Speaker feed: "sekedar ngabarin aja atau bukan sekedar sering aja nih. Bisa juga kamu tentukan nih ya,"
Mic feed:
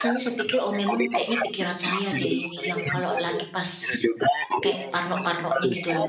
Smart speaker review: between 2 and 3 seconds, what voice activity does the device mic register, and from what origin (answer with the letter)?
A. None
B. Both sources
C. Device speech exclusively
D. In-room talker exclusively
B